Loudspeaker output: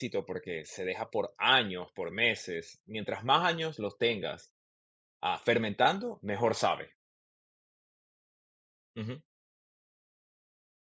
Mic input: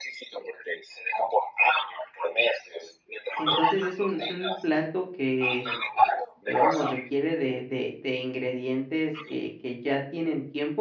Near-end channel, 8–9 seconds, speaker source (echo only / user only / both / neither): user only